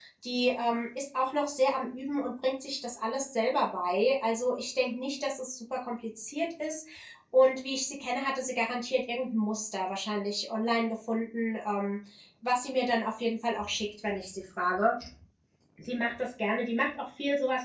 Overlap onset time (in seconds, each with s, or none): none